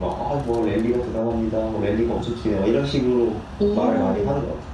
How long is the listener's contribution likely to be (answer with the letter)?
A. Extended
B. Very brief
A